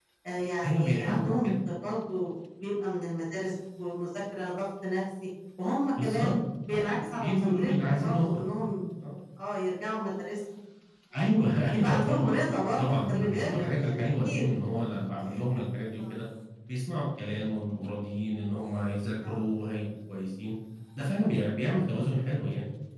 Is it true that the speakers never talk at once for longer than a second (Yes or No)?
No